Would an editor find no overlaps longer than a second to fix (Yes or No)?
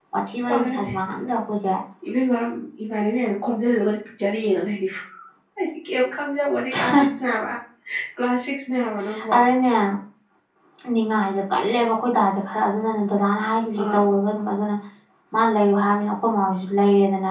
Yes